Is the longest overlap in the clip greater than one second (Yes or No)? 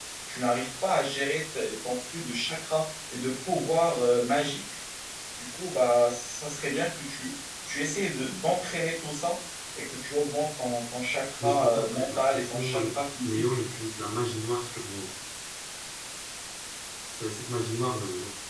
Yes